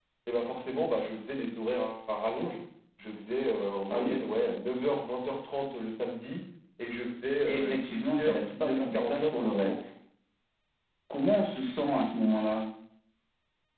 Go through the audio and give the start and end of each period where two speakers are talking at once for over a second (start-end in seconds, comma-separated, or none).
7.5-9.7